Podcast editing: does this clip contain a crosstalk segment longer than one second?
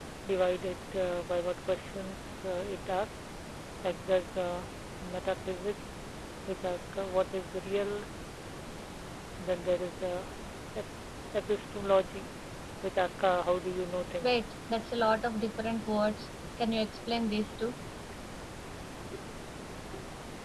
No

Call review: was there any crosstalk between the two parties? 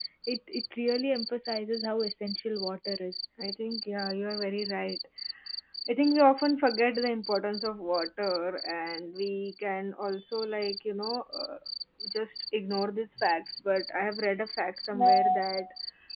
No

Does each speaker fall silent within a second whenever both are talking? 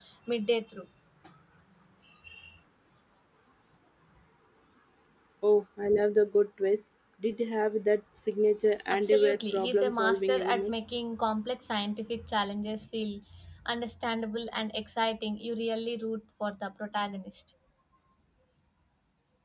No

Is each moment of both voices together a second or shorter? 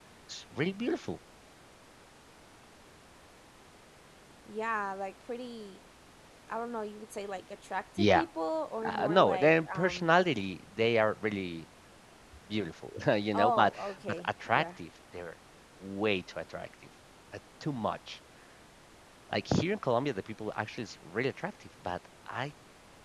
No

